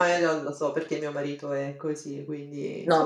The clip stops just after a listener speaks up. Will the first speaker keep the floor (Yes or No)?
No